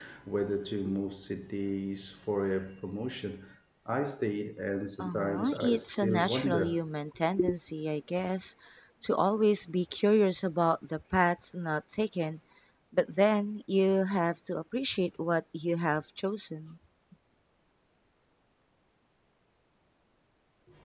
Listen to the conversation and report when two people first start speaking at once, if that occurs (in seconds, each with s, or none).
5.0 s